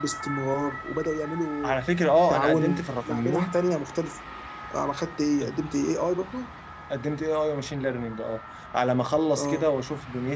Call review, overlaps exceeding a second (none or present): present